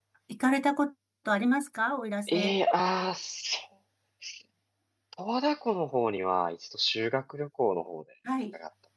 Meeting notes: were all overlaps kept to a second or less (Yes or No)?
Yes